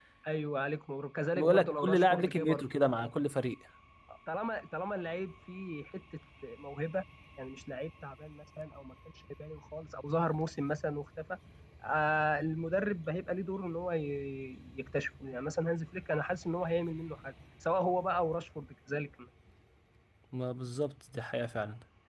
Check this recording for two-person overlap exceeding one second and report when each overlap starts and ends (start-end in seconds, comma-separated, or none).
1.4-2.6